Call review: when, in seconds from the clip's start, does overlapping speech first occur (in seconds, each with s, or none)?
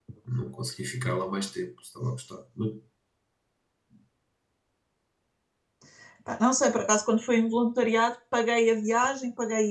none